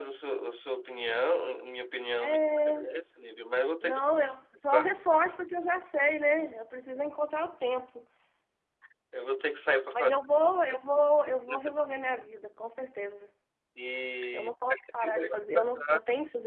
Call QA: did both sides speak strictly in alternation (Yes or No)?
No